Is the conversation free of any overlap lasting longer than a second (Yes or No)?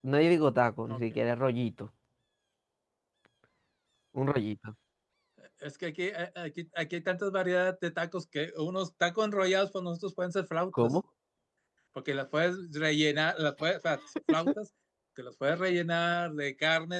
Yes